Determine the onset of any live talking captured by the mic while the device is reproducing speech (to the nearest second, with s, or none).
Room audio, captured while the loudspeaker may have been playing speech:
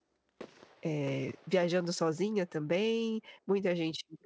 1 s